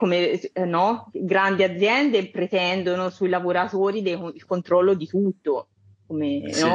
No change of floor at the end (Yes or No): Yes